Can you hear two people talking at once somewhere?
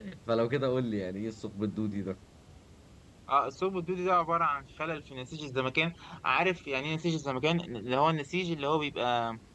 No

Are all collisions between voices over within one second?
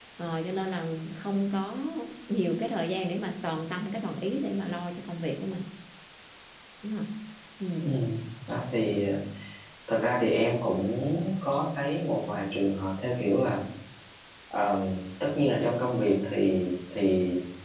Yes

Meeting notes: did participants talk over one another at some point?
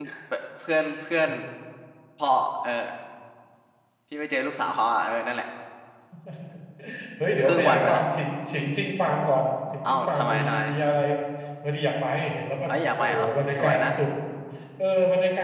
Yes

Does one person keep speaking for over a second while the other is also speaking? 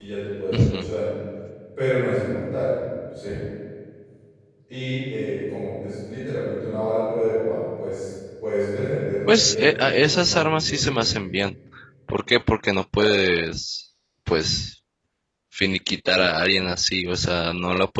Yes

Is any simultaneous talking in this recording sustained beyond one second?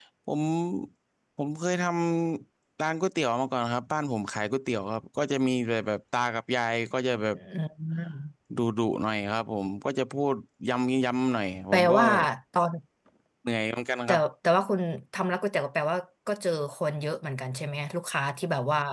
No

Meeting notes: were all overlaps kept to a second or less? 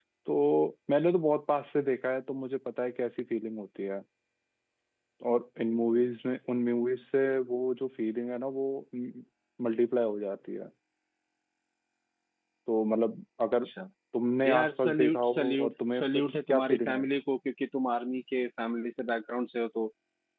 No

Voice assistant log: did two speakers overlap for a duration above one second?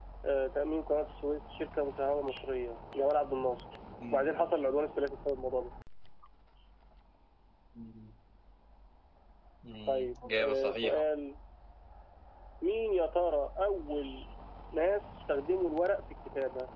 Yes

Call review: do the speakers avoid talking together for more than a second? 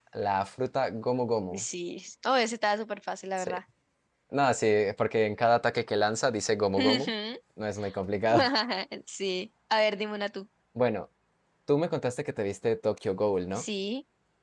Yes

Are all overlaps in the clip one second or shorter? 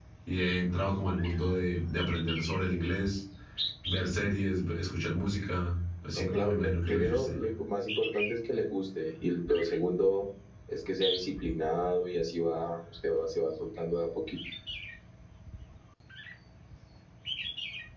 No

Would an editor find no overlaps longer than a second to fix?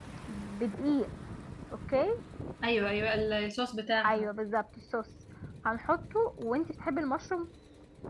Yes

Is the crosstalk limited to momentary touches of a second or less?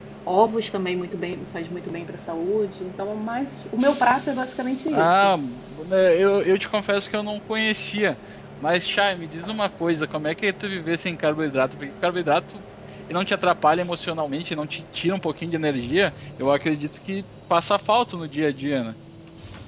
Yes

